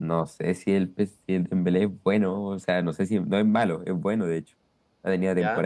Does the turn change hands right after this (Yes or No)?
No